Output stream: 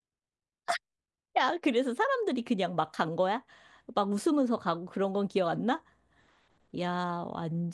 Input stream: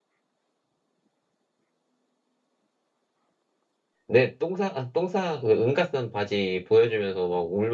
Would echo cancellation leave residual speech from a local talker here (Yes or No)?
Yes